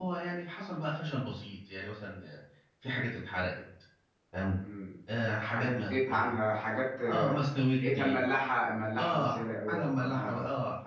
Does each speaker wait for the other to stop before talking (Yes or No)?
No